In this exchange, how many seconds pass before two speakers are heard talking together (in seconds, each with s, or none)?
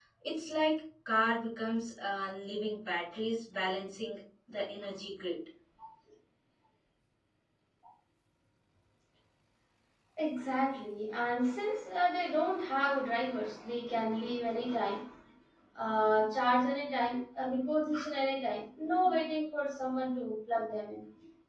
none